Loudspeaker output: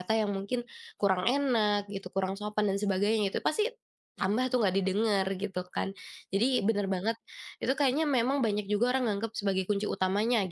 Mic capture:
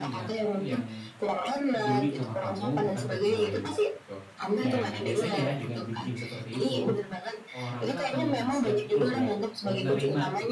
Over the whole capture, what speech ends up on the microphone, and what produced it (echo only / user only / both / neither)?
both